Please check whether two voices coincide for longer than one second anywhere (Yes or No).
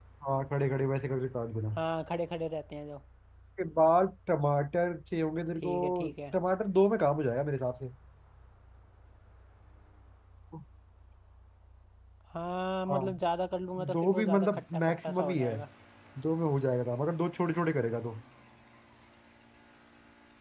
Yes